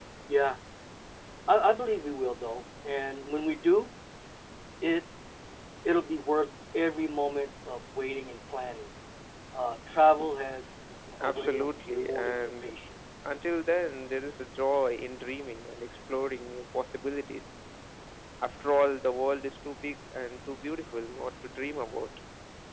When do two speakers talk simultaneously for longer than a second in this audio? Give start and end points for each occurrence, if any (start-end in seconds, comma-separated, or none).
11.2-12.7